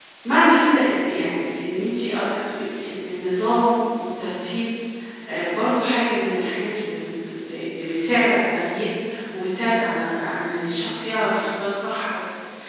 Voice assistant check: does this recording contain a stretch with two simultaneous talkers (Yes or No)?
No